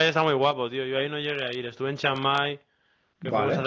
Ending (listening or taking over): listening